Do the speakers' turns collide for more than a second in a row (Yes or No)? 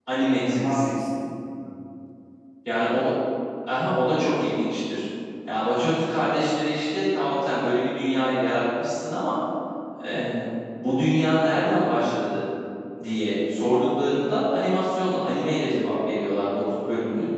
No